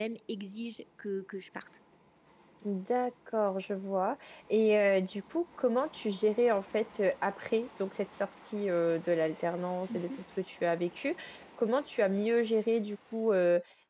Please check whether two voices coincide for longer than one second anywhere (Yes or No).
No